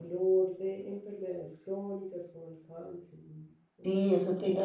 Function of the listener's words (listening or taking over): taking over